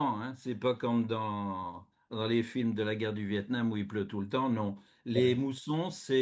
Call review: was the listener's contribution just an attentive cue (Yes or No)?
Yes